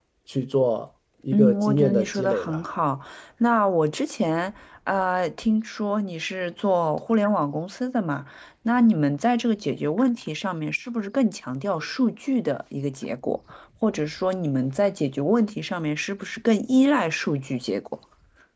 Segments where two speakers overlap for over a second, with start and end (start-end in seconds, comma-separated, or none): 1.3-2.6